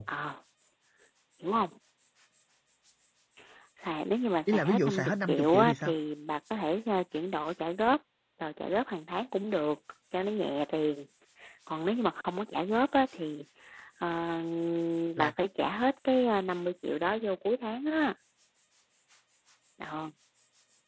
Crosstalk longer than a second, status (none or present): present